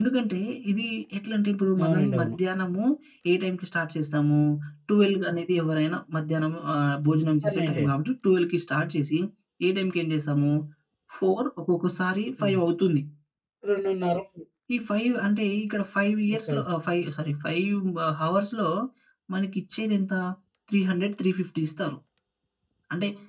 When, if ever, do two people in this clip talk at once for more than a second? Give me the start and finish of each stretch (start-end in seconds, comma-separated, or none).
none